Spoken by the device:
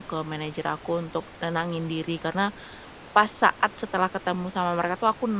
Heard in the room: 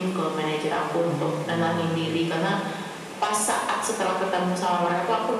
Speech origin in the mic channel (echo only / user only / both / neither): both